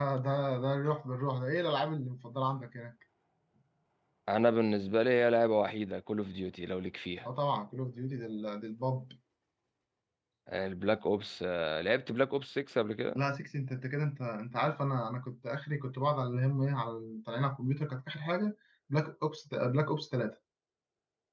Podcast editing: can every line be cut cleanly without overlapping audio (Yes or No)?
Yes